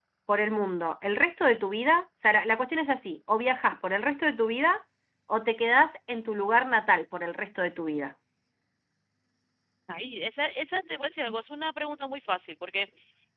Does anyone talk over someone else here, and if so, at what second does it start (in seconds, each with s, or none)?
none